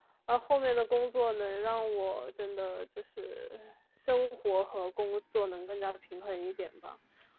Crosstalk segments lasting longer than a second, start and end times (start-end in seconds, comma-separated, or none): none